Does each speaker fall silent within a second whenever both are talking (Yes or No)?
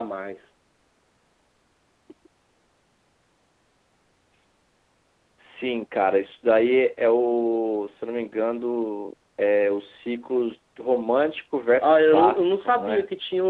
No